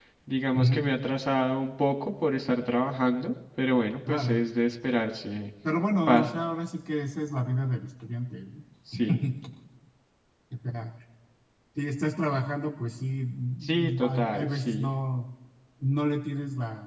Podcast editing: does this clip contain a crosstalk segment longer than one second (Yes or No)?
Yes